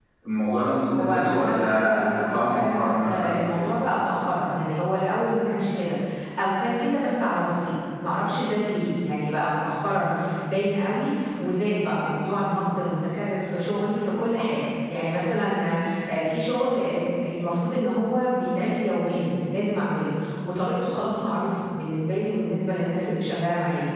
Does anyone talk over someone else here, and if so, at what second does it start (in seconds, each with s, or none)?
1.0 s